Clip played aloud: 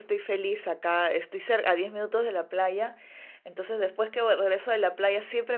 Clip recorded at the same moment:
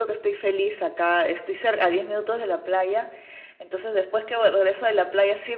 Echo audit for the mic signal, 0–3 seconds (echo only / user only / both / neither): echo only